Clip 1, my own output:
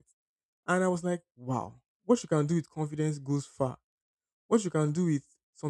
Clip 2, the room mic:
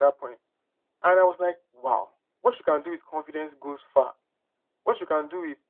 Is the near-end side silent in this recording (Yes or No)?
Yes